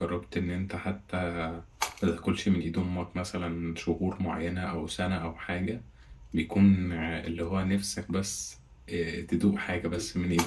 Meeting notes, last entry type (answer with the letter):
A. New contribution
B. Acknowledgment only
A